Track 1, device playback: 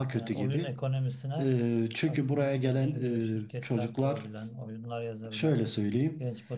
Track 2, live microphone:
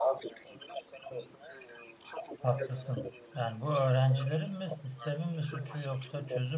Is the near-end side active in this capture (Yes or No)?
Yes